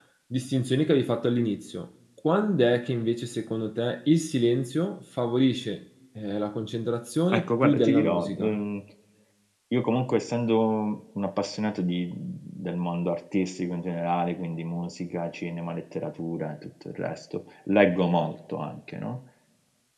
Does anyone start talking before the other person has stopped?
Yes, from 7.3 s

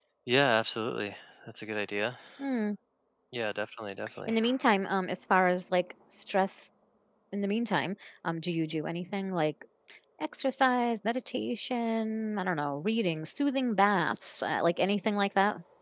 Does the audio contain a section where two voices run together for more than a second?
No

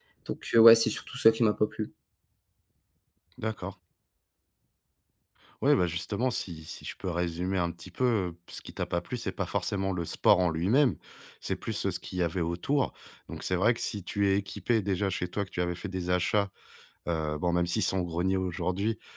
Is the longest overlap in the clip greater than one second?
No

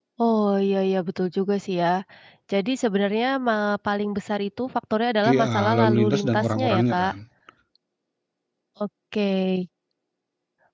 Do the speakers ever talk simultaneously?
Yes, from 5.2 s

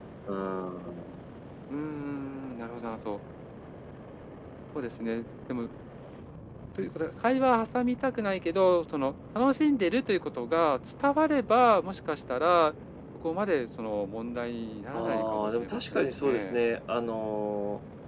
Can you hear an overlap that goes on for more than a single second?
Yes, from 14.9 s

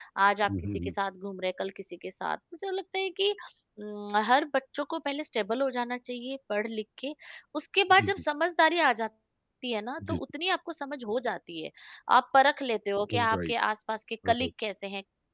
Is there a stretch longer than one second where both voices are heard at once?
No

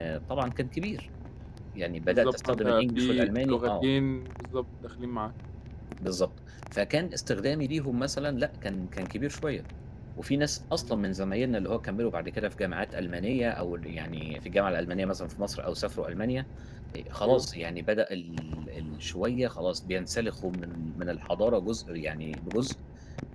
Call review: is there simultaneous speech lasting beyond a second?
Yes, from 2.0 s

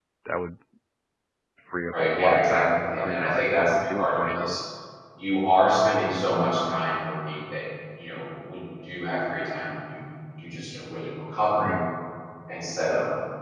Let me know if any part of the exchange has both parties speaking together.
Yes, from 1.9 s

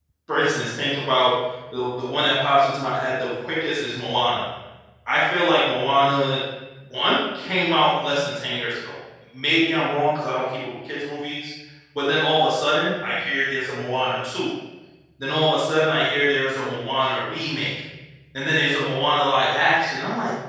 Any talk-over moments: No

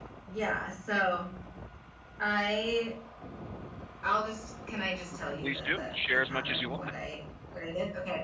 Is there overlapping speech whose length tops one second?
Yes, from 5.4 s

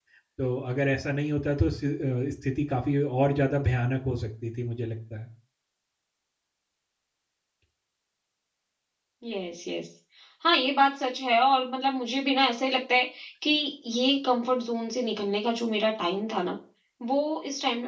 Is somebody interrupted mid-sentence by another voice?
No

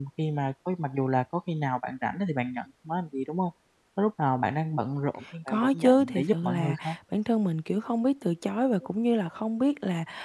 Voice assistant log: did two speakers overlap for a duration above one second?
Yes, from 5.5 s

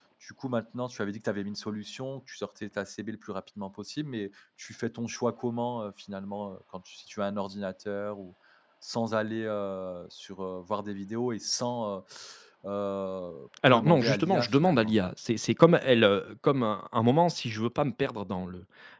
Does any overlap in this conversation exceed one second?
Yes, from 13.6 s

